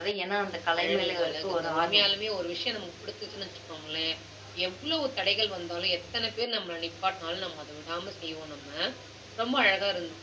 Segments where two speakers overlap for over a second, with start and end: 0.8-2.0

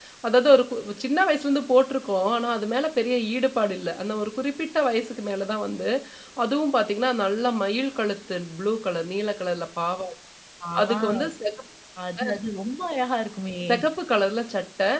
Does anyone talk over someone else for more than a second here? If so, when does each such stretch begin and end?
none

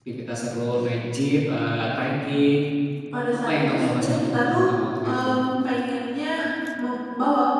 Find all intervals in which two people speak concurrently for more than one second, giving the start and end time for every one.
3.3-4.7

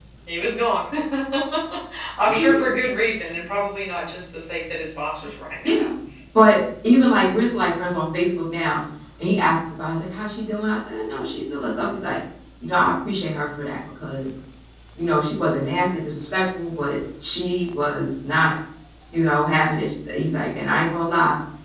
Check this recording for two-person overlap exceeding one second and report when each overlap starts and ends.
none

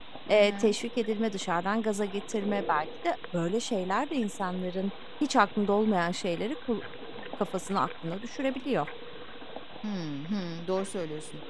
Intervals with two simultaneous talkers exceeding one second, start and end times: none

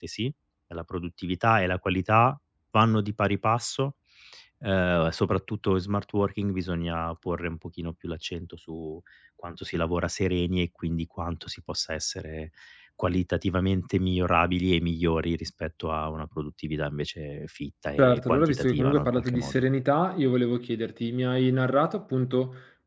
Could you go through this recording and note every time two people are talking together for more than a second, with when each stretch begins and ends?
18.0-19.6

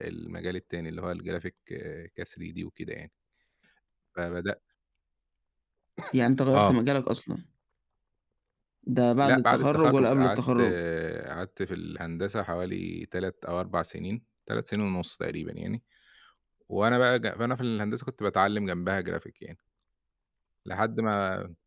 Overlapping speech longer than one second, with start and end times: 9.2-10.6

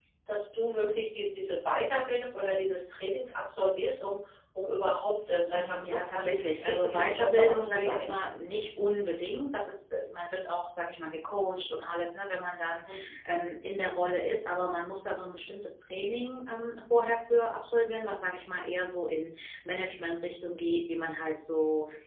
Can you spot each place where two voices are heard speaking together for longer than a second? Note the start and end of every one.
5.5-8.1

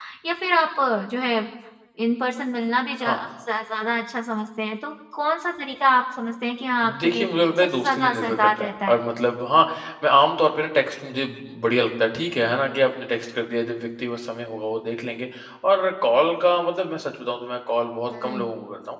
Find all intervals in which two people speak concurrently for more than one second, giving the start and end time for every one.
6.8-9.0

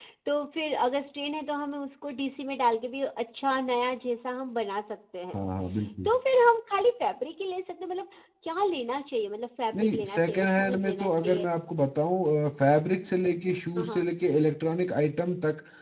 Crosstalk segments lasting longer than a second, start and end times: 9.8-11.4

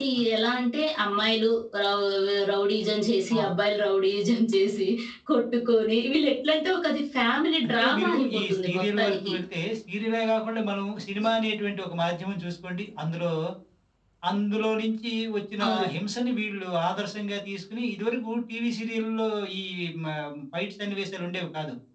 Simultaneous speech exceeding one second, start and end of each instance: 7.7-9.3

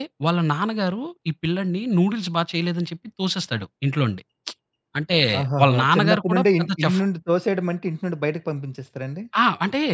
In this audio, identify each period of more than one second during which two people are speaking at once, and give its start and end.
5.6-7.0

